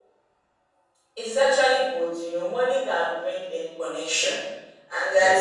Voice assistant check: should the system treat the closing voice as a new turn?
No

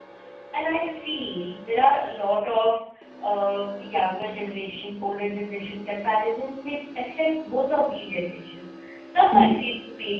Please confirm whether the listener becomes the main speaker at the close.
No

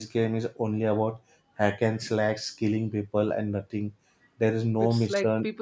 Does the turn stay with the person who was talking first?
No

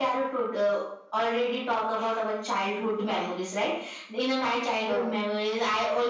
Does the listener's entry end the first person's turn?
No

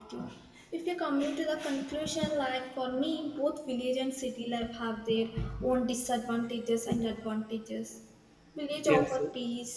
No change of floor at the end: Yes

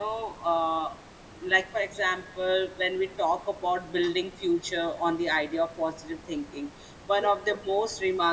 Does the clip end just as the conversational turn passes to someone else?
No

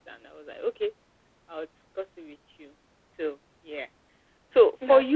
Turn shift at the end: No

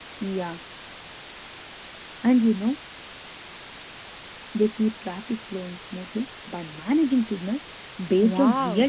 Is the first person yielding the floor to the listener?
Yes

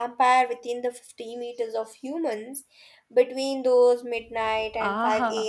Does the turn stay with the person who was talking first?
No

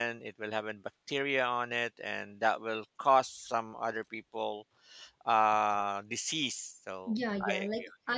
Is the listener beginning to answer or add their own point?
Yes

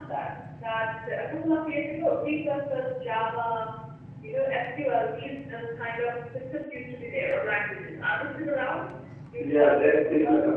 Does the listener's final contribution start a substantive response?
Yes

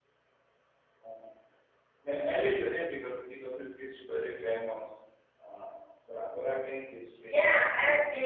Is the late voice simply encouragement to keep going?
No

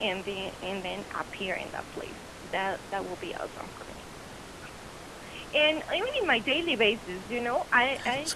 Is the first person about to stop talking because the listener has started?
No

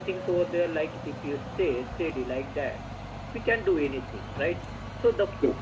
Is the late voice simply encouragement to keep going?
Yes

